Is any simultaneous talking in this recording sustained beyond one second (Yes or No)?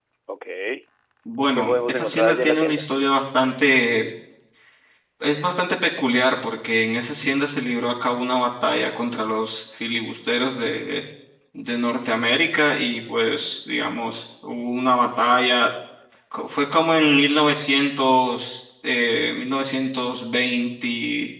Yes